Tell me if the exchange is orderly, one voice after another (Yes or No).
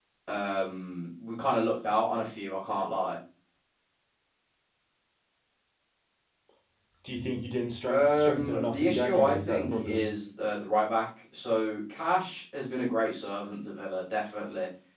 No